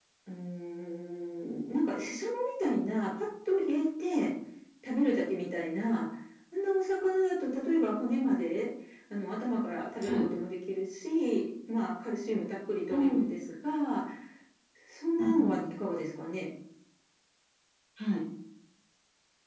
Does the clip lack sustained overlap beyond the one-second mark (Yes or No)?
Yes